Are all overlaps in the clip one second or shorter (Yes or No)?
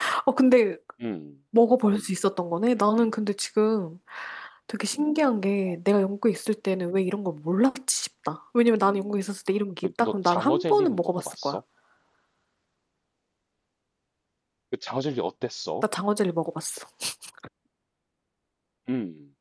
No